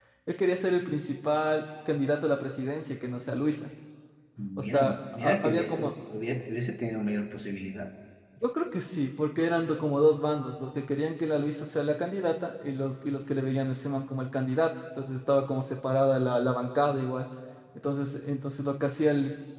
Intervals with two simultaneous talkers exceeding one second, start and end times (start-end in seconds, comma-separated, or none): 4.6-5.9